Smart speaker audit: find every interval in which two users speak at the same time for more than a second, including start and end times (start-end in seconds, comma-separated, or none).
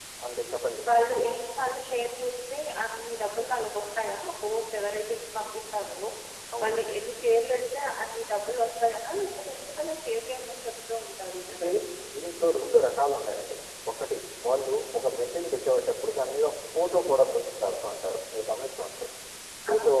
none